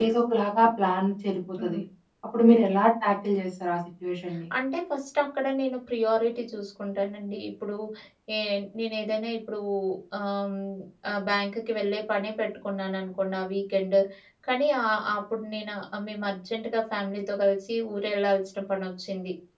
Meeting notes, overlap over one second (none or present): none